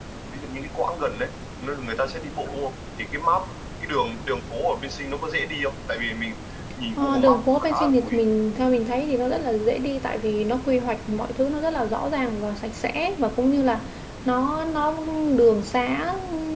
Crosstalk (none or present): present